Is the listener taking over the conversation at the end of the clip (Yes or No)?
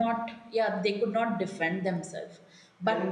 No